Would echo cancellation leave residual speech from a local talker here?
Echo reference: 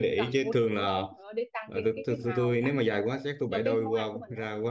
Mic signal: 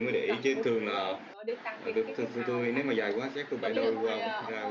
Yes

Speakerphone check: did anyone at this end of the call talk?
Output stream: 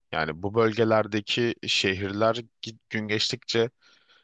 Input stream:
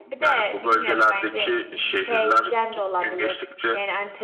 Yes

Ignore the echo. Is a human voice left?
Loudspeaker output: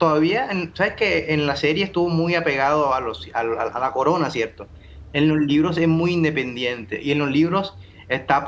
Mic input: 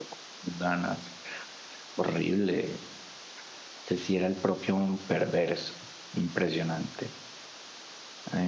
Yes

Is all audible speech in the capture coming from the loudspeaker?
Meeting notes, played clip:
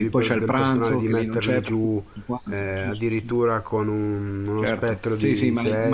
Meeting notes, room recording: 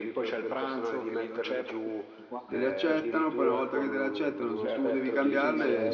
No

